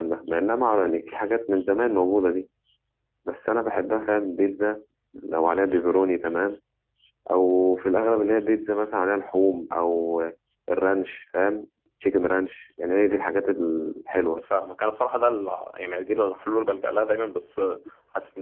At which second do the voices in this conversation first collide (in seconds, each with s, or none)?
none